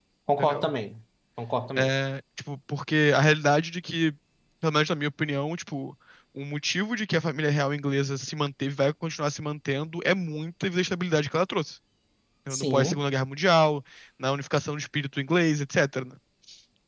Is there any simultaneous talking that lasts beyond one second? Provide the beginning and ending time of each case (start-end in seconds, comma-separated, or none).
none